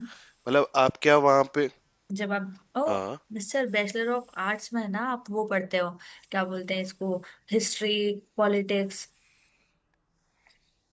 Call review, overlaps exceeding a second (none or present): none